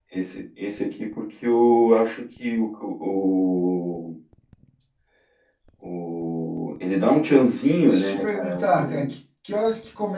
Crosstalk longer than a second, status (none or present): present